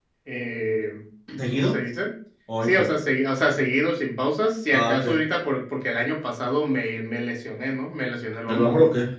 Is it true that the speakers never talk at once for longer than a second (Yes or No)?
Yes